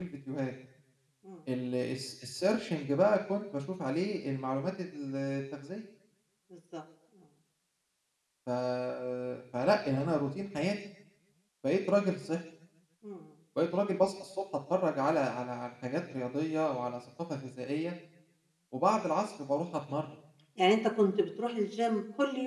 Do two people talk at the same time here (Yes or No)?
No